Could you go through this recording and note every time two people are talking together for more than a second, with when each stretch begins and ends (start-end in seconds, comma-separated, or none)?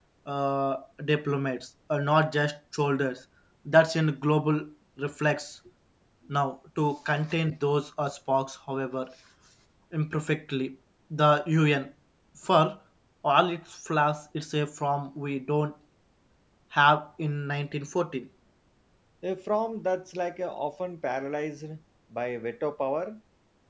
none